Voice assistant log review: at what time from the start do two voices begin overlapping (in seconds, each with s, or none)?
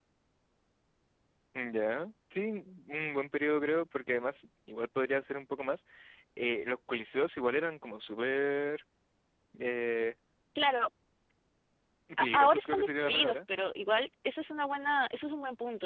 12.2 s